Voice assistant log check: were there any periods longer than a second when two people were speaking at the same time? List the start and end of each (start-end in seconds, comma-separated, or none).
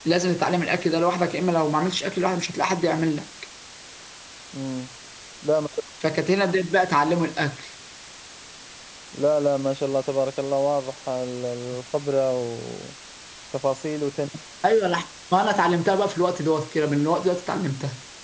none